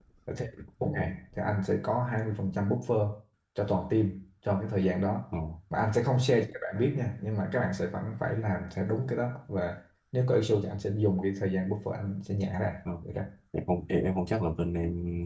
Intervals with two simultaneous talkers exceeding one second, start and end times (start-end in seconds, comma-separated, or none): none